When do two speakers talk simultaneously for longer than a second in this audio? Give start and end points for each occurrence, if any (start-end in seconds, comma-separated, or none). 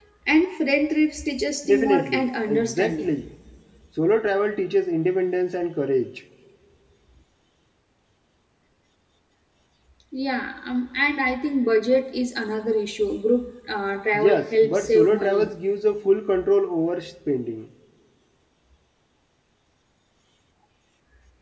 1.7-3.1, 14.1-15.5